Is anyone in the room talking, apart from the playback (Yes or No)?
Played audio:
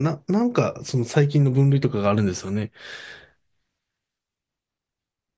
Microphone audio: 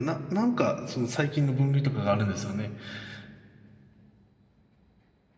No